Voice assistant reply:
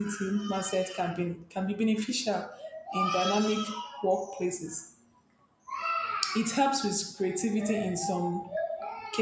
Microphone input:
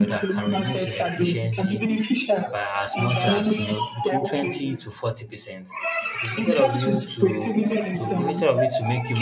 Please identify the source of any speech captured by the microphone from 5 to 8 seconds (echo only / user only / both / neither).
both